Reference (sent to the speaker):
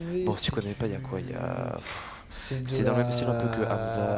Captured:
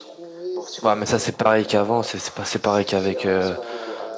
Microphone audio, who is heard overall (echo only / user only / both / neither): both